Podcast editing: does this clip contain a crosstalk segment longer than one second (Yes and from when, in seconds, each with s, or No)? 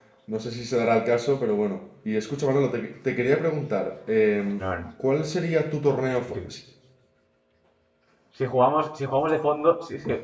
No